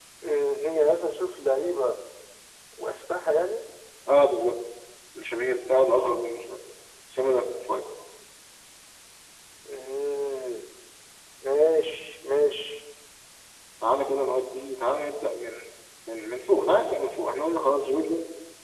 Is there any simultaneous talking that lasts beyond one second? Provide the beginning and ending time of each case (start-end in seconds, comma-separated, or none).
none